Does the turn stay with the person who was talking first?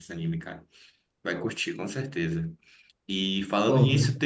Yes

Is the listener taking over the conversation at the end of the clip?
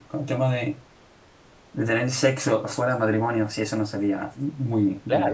Yes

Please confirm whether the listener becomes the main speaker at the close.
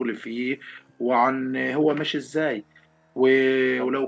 No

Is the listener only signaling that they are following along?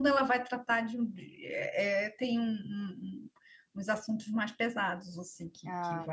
Yes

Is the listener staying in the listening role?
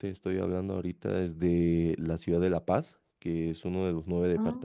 Yes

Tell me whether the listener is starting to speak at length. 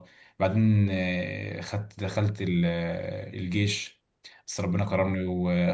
No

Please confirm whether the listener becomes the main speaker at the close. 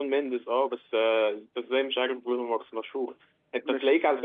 No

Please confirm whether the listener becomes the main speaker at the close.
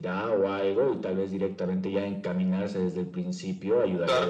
Yes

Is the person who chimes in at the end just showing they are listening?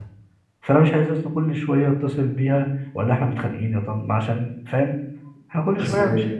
Yes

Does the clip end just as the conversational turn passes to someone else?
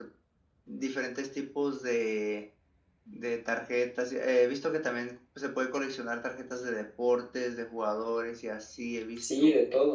Yes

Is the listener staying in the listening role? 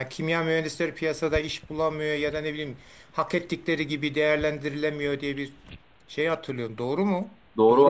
No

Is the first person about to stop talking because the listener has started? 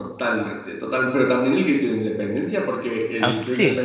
No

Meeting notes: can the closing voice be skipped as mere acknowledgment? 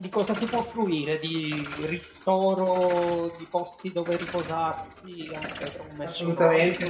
No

